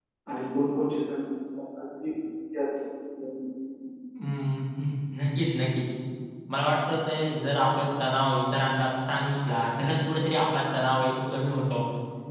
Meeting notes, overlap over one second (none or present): none